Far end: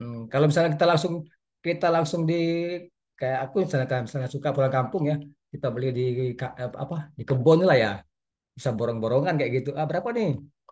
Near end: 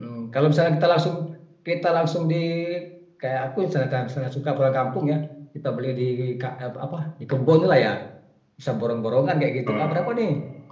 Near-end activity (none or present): present